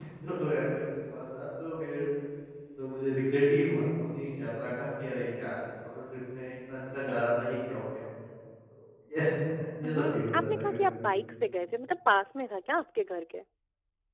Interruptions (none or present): present